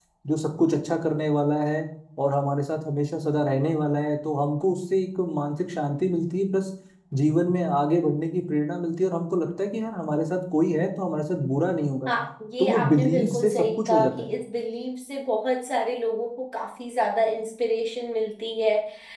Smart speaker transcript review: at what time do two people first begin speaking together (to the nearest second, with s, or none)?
13 s